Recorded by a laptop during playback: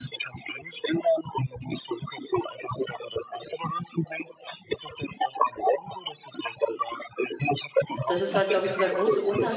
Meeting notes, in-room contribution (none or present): present